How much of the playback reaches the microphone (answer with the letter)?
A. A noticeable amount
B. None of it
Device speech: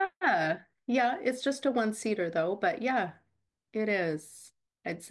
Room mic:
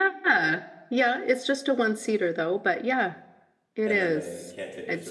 A